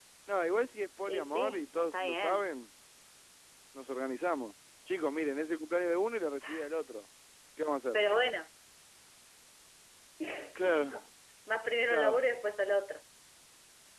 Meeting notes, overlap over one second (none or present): present